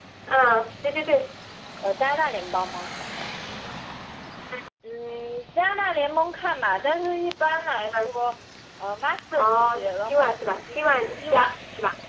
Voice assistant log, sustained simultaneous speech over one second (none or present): present